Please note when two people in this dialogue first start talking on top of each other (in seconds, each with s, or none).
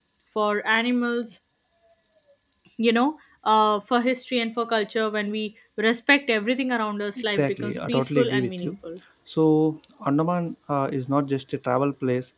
7.3 s